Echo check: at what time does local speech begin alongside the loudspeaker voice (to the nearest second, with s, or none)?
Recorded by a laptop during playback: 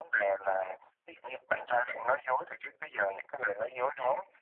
none